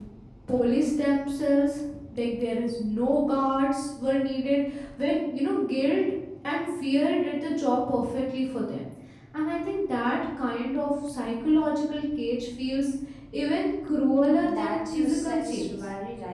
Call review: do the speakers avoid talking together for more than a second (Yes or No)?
No